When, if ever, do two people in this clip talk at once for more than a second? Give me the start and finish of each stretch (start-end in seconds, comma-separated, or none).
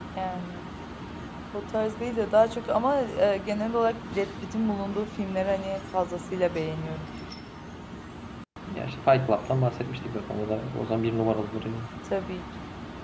none